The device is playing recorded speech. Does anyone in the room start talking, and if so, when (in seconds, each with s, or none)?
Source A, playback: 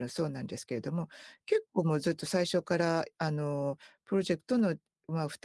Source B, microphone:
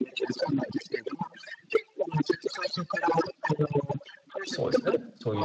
4.5 s